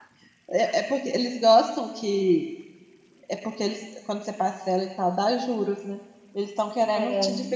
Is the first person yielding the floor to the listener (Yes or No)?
No